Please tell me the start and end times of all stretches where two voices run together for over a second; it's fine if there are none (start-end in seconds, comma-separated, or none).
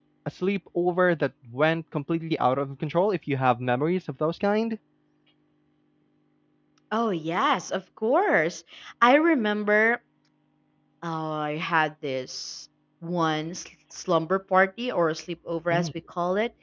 none